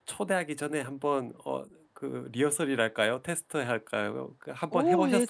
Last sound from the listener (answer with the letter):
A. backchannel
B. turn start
B